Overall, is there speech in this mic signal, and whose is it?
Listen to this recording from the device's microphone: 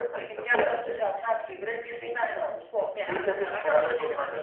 echo only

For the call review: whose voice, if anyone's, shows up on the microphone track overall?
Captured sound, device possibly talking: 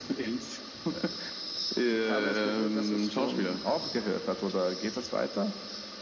echo only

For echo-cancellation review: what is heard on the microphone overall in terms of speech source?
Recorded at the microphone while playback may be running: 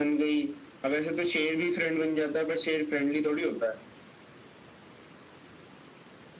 echo only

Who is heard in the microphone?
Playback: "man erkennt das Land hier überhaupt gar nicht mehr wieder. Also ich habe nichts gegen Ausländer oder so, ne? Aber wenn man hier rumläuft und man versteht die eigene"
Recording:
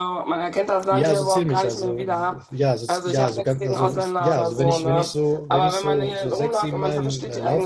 both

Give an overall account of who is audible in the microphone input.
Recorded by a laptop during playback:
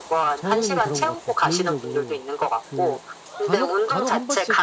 both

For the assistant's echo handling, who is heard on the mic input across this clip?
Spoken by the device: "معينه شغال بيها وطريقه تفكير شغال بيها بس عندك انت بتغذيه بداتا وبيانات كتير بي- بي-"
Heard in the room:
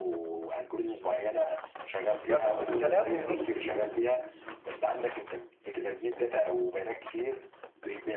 both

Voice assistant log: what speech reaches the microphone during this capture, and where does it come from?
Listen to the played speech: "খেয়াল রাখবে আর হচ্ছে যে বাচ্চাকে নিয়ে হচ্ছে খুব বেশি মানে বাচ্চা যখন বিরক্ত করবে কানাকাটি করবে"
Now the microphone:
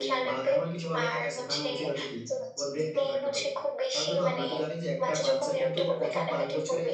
both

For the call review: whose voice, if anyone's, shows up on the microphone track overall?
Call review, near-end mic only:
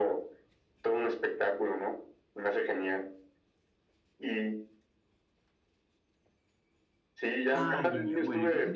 both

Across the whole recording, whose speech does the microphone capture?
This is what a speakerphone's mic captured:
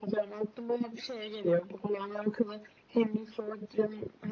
echo only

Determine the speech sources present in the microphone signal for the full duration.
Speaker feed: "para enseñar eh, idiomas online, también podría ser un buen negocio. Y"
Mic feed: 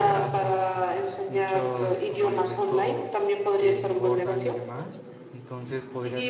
both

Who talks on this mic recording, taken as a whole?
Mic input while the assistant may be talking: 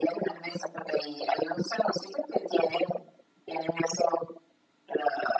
echo only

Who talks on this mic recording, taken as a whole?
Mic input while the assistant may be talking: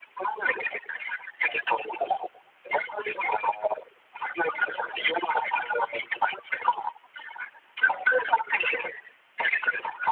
echo only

